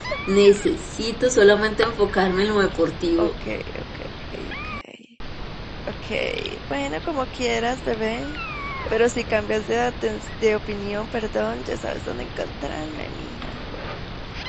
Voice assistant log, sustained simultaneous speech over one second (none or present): none